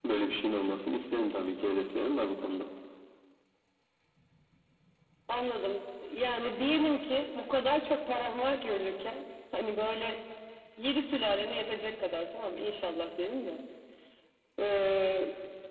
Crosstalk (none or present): none